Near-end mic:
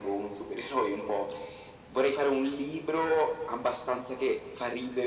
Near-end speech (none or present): none